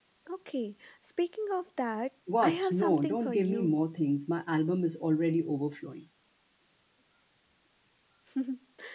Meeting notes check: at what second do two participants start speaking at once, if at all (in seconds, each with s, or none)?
2.3 s